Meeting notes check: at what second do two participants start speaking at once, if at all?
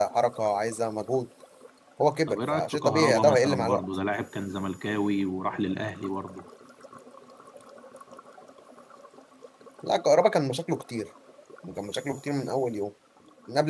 2.3 s

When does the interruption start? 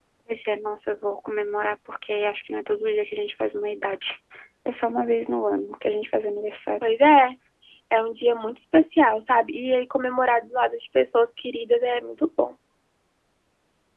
none

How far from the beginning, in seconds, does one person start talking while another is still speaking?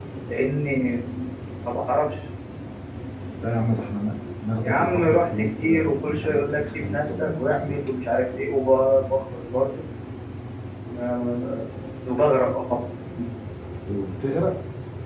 4.6 s

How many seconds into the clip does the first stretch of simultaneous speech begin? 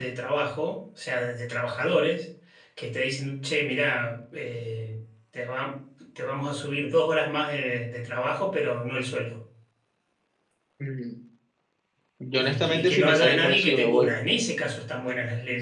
12.4 s

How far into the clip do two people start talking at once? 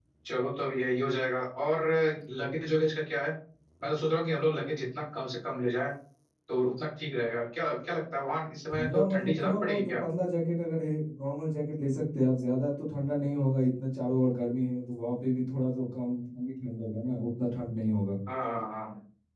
8.7 s

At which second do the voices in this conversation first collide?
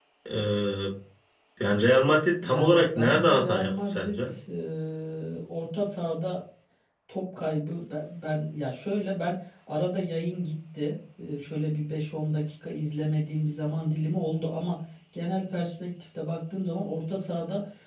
2.4 s

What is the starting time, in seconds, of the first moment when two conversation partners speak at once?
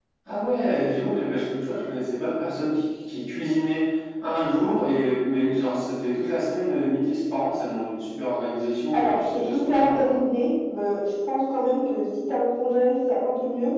8.9 s

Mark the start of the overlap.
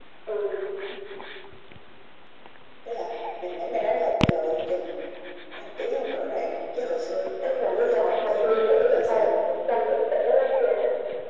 7.4 s

